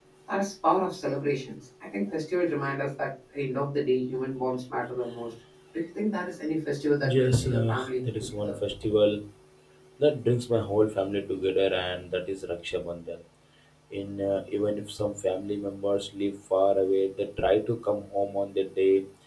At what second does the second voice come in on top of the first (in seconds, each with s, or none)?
7.0 s